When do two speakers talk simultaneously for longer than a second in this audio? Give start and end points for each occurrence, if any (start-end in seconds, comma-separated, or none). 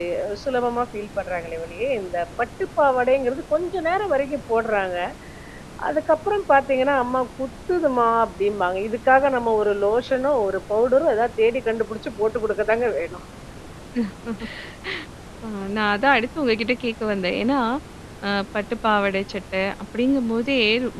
none